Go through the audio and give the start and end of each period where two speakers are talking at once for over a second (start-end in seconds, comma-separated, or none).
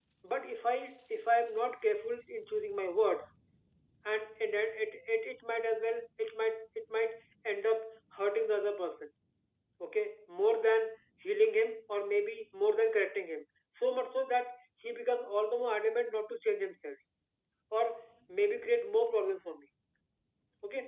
none